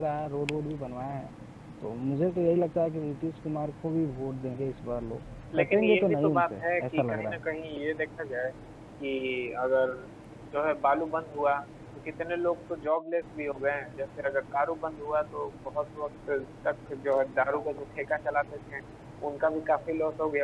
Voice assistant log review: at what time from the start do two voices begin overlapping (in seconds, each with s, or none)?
5.5 s